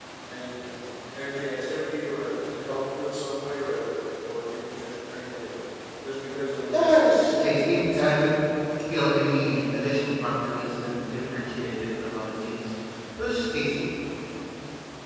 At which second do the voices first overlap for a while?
6.7 s

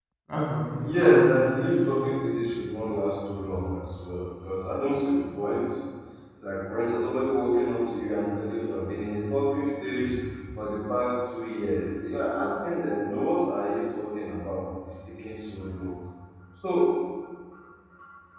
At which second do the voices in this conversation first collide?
0.8 s

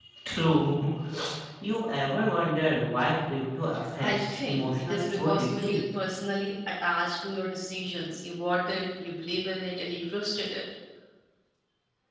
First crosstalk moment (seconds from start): 4.0 s

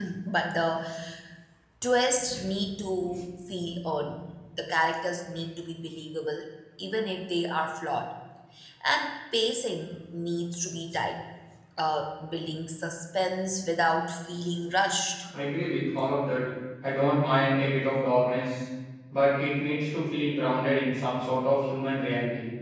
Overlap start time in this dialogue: none

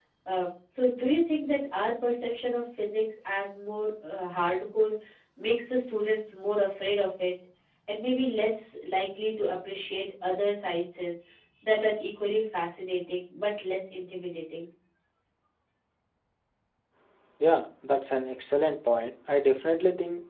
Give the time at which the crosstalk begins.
none

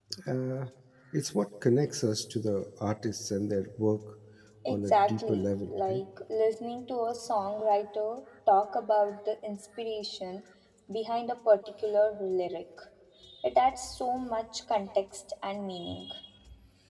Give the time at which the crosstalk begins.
4.7 s

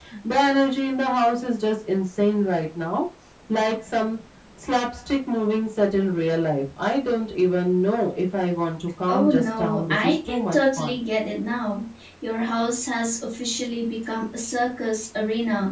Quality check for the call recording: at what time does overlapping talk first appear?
9.1 s

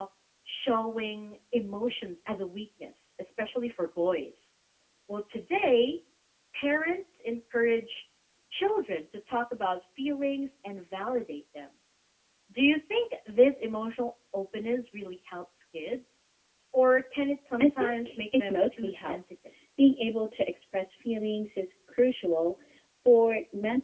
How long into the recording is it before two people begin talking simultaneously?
17.6 s

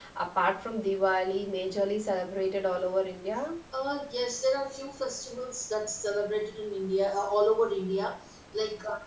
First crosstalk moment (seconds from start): none

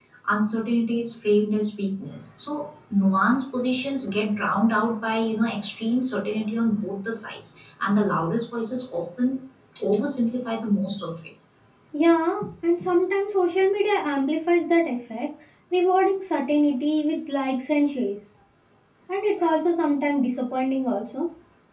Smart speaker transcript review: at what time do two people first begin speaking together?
none

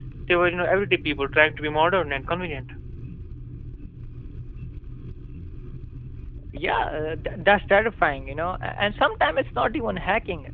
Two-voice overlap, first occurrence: none

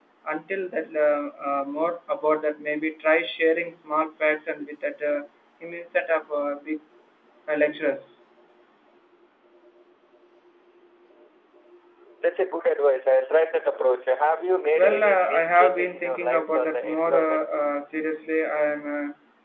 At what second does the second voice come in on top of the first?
14.8 s

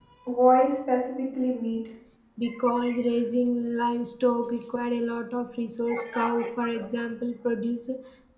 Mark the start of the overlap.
none

